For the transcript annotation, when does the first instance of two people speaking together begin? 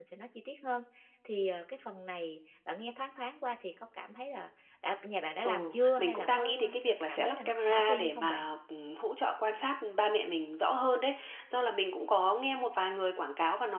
5 s

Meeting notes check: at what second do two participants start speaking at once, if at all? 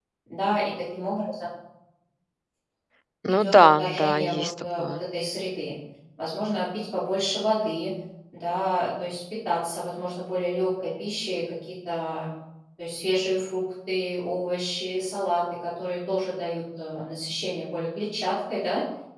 3 s

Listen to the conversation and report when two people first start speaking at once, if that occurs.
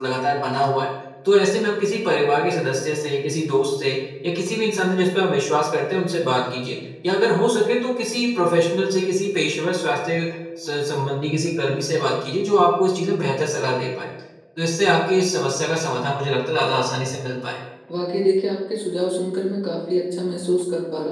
none

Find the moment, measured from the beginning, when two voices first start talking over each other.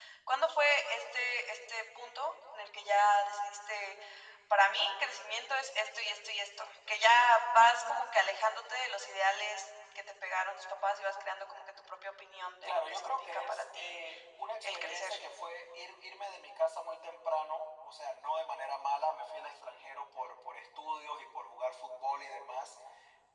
13 s

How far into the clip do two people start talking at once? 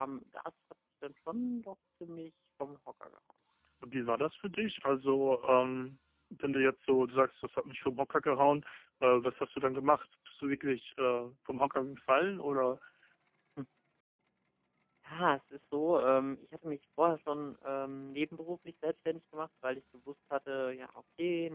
none

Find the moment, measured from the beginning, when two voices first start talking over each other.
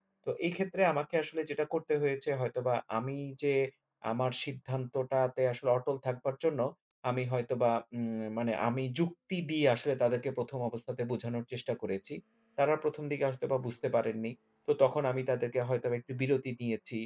none

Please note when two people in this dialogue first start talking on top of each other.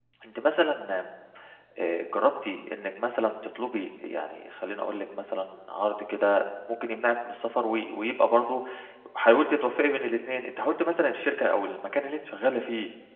none

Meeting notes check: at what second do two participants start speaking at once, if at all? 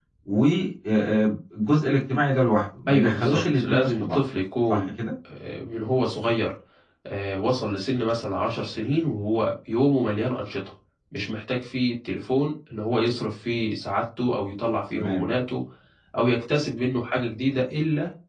3 s

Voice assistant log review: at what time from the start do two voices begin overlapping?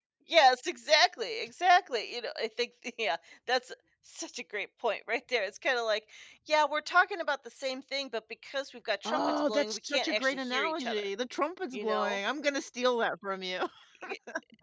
9 s

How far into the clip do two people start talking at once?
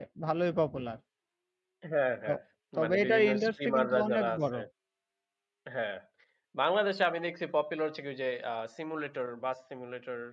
3 s

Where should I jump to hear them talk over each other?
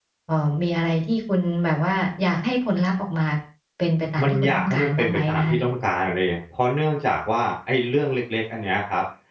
4 s

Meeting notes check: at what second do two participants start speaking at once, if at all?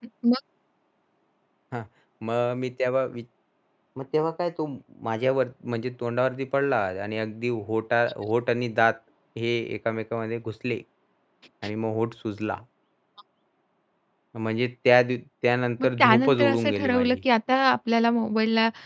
16 s

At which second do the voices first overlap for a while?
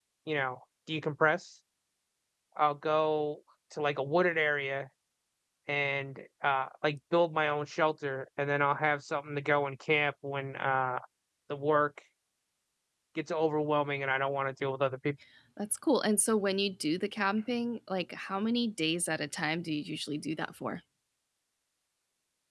none

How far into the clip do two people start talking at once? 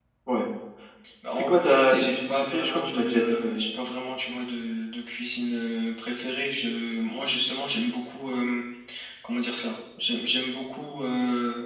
1 s

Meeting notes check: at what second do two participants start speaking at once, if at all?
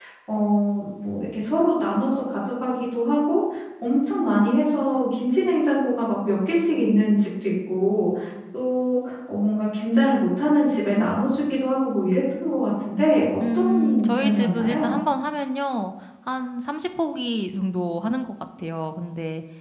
13 s

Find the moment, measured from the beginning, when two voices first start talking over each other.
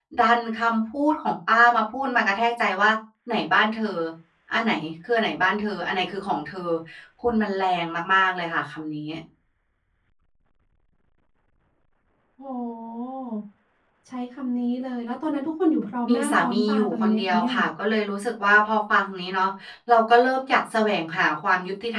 16 s

